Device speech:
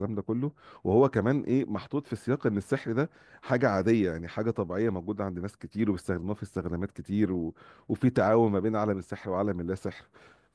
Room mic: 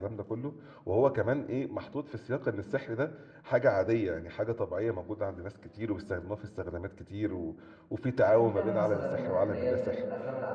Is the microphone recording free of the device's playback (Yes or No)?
No